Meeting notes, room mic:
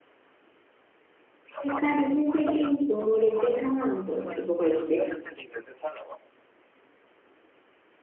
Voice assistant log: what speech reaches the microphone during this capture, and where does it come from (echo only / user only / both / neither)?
both